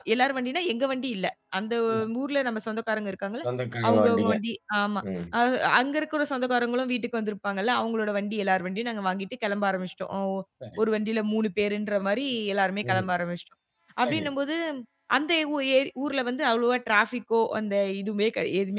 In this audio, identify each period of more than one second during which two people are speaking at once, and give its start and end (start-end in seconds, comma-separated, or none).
none